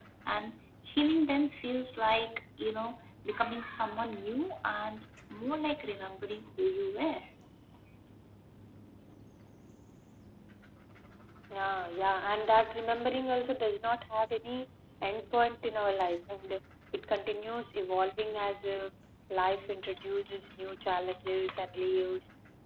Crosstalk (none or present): none